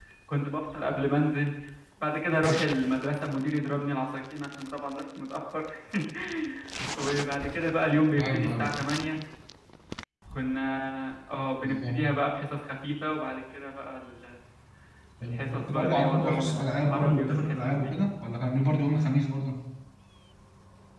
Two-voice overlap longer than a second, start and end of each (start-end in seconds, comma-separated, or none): 15.2-17.9